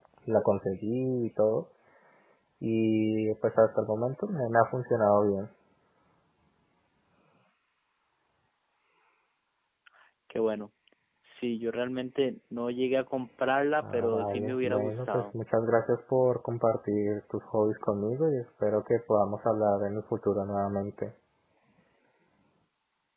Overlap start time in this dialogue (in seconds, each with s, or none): 13.8 s